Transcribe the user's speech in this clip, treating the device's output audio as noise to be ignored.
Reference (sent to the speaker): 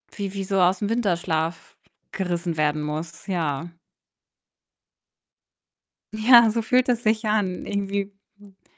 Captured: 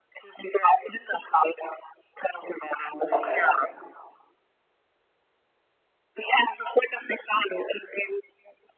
Okay.

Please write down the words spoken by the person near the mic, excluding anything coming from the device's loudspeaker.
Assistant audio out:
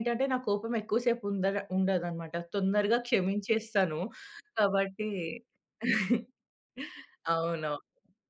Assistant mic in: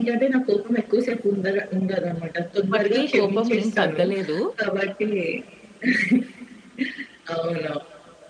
అప్పటికి కోపం ఏం తగ్గలేదు.

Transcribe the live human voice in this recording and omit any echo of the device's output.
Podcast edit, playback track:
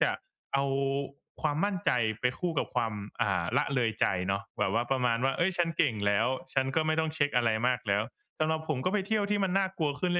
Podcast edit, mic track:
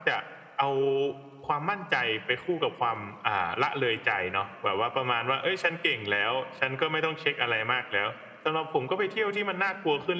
none

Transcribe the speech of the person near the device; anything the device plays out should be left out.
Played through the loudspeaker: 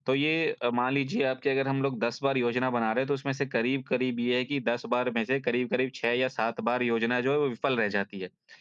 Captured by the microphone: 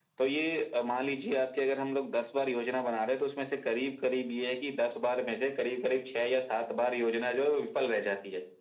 none

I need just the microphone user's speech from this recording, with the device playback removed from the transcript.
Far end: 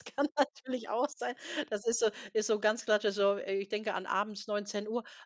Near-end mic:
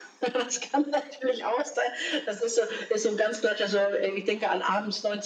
none

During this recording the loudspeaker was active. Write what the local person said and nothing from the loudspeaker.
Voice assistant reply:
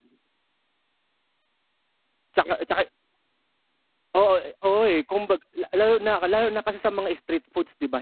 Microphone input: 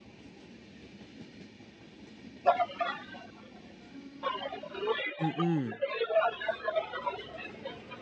Mm.

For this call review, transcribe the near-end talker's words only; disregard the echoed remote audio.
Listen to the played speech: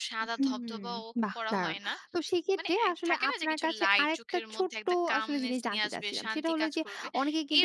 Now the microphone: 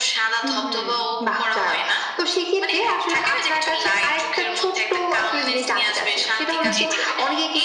জি, জি।

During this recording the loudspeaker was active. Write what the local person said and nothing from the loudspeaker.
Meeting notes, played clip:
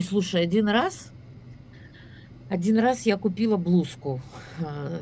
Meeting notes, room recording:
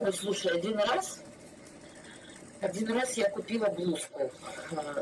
none

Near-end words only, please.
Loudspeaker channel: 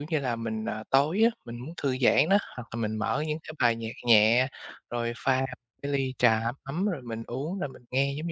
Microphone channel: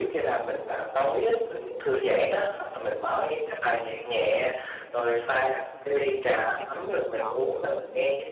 thì mình lại chọn lựa mình,

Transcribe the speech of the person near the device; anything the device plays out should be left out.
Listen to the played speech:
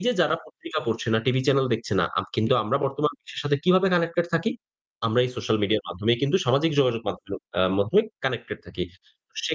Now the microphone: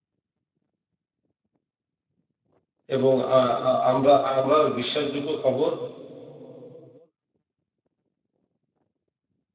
এবং আ আ আমরা আবার বিশ্বাসযোগ্য খবর

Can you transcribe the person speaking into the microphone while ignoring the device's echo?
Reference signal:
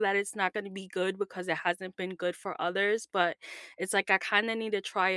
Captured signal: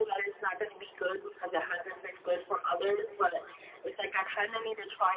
none

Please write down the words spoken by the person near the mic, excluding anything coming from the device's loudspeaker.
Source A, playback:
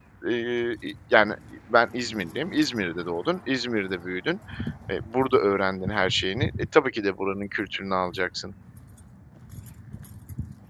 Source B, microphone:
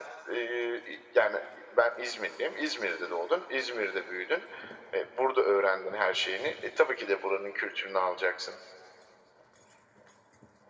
none

